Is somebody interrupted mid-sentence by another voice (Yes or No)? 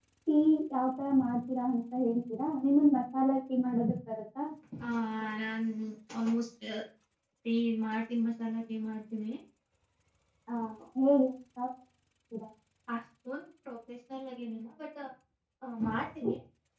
No